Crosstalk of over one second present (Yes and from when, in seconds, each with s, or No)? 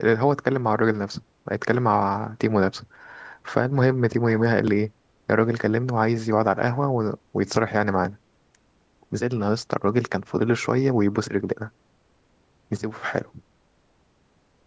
No